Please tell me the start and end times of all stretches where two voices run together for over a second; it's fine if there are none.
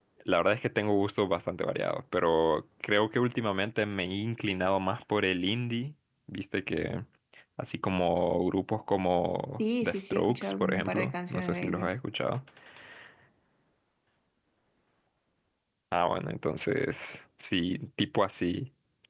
9.6-12.0

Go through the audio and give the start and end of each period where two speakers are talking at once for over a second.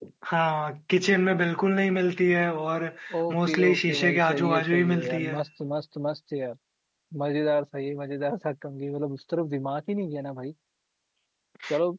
3.3-5.4

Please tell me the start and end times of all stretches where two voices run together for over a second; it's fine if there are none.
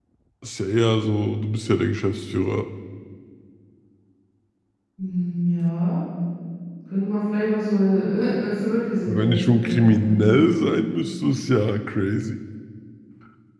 9.1-10.5

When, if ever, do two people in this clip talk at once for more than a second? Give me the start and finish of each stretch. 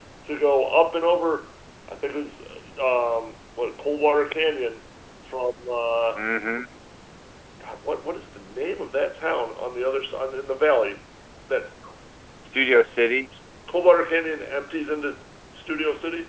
none

